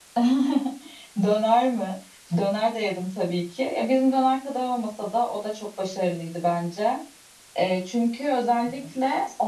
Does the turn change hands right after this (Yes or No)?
No